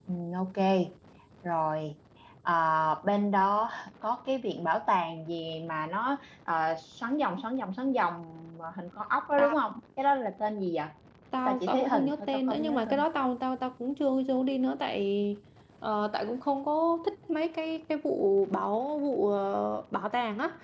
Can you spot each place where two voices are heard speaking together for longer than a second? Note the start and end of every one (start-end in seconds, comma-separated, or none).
11.4-13.0